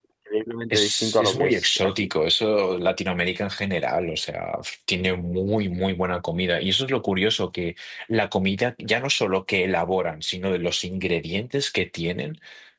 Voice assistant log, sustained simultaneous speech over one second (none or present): present